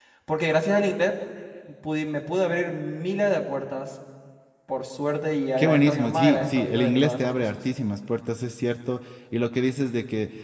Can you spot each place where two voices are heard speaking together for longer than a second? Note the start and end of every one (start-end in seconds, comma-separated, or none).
5.6-7.6